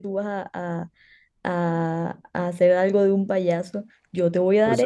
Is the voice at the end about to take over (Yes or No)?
No